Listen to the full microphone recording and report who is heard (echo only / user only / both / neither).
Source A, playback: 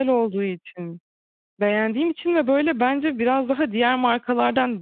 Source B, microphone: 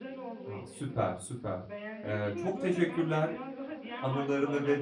both